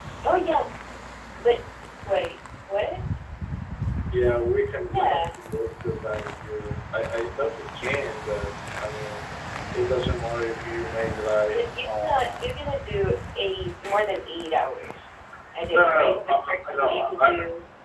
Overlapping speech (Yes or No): Yes